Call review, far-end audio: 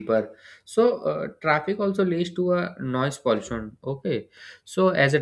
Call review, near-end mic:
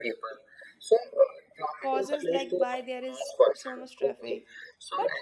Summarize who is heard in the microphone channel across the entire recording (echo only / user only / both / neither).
both